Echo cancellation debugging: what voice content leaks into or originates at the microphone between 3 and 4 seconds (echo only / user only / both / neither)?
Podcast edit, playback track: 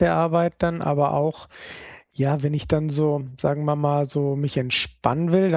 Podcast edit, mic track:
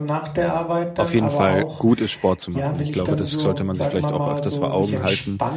both